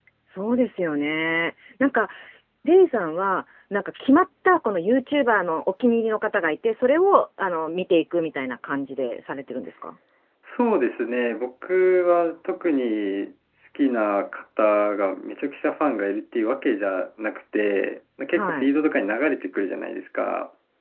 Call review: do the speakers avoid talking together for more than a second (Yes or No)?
Yes